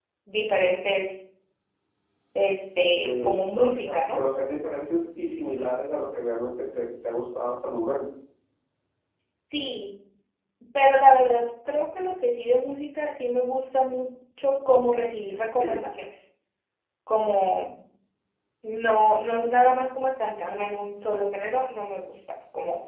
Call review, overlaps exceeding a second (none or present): present